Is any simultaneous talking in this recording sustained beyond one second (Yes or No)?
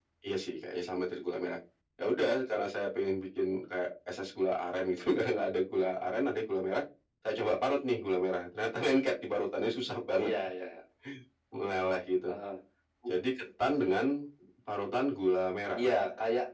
No